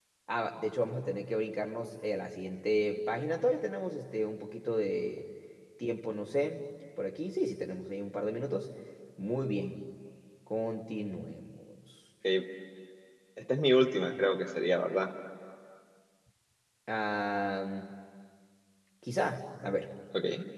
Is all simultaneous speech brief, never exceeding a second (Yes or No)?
Yes